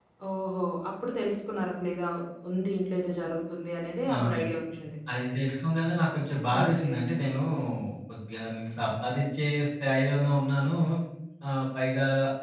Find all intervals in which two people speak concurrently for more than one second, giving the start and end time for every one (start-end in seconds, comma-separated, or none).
none